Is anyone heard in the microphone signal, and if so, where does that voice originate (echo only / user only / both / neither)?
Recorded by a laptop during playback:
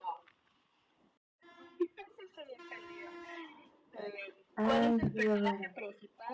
both